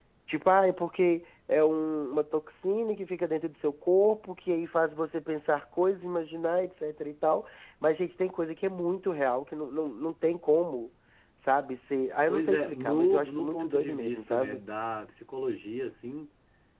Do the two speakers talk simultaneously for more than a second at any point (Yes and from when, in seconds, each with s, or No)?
Yes, from 12.3 s